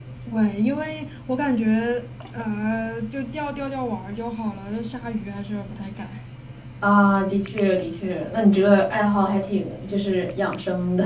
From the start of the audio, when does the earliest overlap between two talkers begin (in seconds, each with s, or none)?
none